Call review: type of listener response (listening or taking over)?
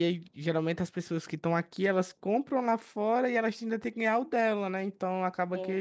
listening